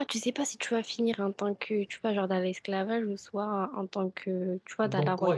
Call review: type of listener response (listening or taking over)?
taking over